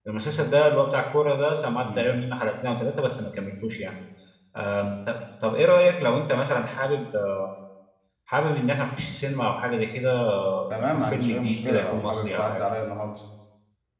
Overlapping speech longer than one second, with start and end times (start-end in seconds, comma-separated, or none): 10.8-12.6